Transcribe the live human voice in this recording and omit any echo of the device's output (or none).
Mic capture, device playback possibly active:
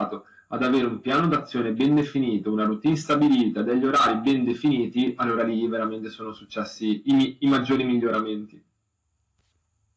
none